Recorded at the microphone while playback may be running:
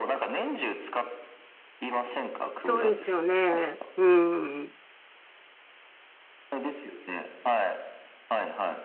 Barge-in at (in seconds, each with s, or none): 2.6 s